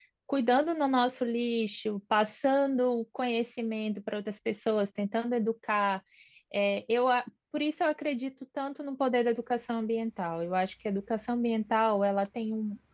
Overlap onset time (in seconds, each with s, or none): none